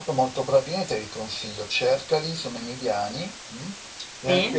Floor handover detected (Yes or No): No